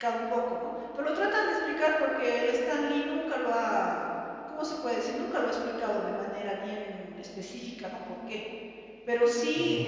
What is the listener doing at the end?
listening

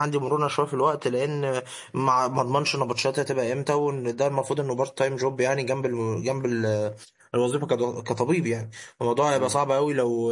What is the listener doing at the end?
listening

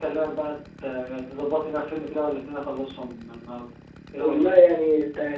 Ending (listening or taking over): taking over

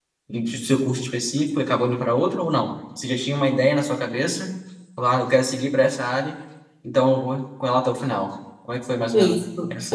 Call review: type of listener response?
taking over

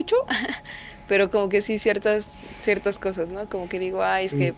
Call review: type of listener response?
listening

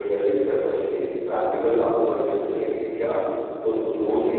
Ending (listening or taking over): listening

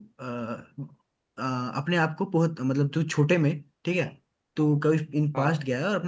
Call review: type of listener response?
listening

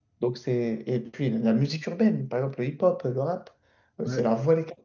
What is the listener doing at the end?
listening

